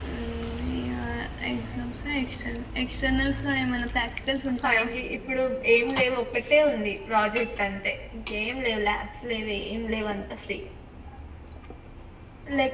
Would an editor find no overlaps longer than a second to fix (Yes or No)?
Yes